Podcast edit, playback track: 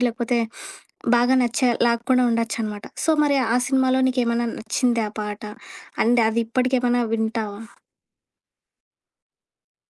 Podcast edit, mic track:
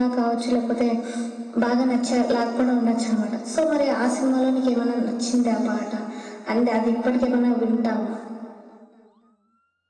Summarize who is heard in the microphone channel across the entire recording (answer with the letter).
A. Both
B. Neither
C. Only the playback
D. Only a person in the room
C